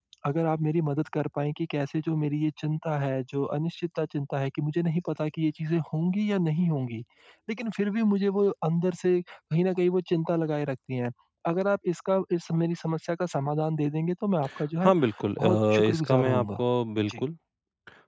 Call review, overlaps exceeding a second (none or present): present